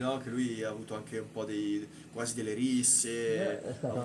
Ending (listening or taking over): taking over